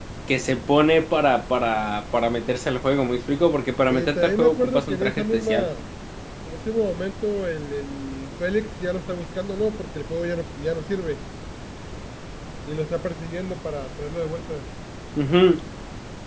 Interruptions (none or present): present